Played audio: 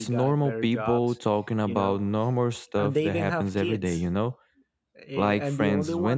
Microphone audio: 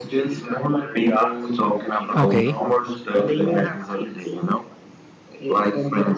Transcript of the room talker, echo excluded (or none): Okay.